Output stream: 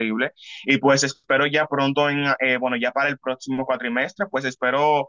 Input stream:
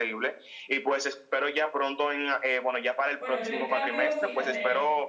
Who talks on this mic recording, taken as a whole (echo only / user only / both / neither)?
both